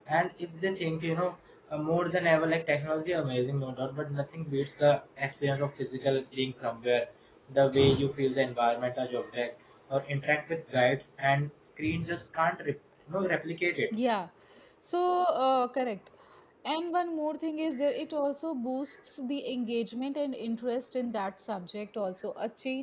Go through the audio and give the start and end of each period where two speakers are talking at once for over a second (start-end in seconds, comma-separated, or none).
none